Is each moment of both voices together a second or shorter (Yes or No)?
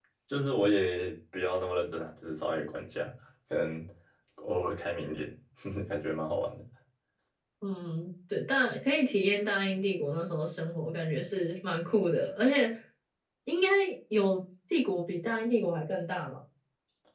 Yes